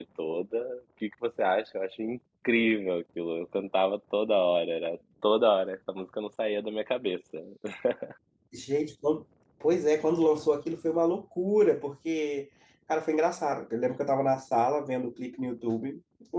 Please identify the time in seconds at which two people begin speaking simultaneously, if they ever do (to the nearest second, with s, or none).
none